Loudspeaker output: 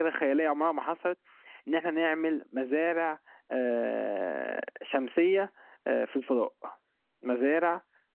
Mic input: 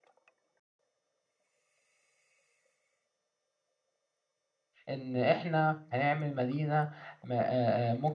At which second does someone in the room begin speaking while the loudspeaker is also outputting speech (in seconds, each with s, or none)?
4.9 s